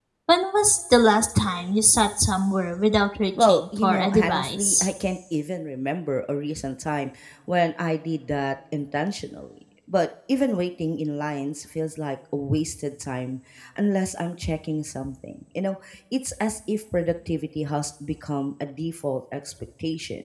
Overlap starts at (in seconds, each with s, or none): 3.4 s